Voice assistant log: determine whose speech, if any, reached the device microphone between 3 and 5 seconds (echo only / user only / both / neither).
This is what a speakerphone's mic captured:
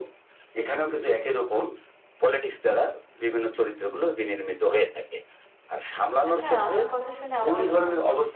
echo only